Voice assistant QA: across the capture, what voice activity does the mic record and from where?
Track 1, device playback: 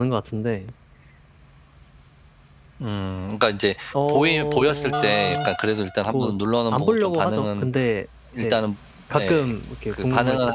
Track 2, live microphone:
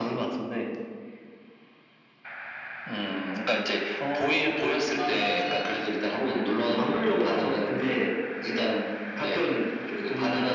echo only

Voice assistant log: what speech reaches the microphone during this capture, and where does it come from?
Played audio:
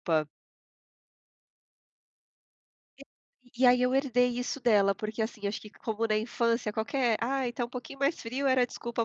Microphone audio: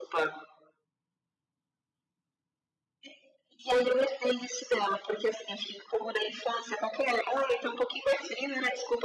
echo only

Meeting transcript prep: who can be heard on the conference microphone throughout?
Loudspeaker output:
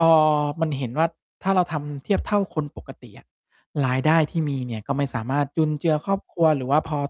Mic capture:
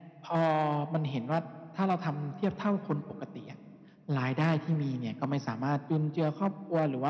echo only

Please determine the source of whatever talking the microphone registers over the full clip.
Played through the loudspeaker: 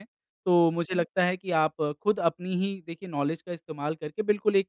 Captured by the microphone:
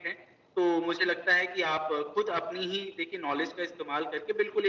echo only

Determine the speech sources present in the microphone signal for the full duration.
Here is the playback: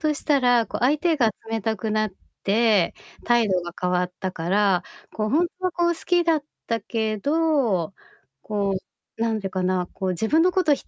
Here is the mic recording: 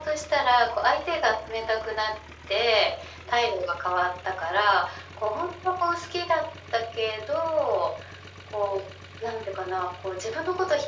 echo only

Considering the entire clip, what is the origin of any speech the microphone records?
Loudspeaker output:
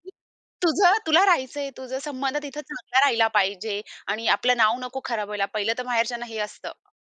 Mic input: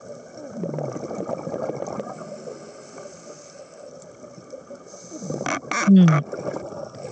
user only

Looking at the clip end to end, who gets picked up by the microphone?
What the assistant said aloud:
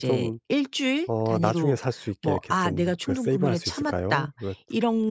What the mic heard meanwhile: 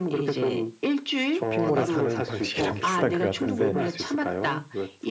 both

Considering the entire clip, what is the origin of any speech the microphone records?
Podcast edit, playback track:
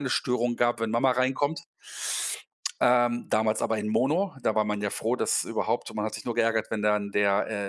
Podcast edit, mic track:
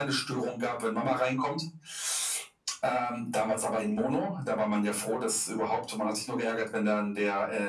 echo only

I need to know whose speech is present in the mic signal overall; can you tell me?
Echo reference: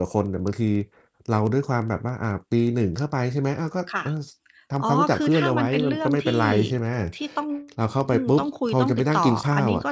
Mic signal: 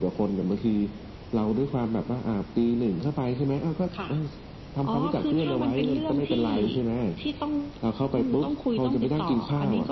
echo only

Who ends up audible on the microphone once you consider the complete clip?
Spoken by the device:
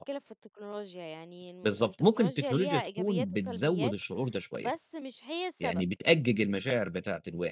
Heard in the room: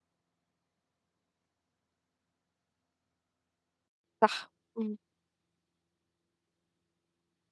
user only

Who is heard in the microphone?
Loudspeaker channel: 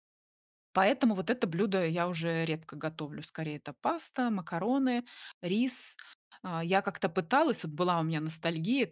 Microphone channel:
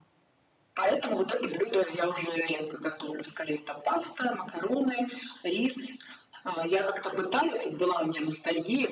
echo only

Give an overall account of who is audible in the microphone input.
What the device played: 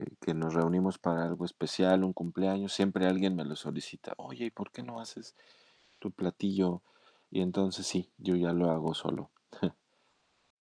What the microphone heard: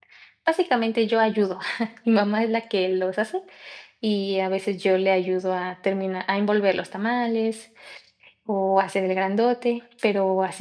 user only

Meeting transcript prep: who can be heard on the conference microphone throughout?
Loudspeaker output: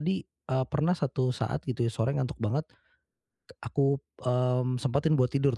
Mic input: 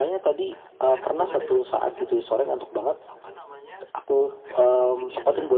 both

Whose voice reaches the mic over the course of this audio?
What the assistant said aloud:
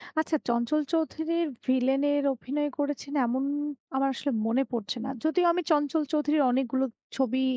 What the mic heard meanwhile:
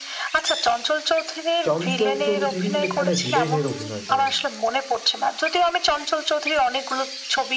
both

